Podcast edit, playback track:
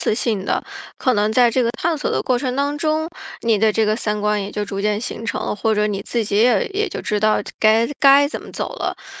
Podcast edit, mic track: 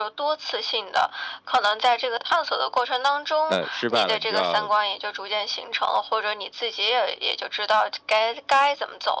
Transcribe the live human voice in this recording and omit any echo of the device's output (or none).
呃失败了，你就要